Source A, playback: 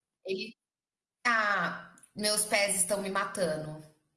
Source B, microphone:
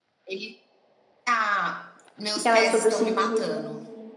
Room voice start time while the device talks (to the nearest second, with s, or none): 2 s